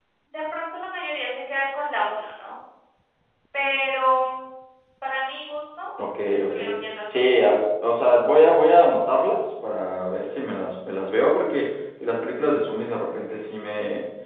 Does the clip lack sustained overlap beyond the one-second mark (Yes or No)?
Yes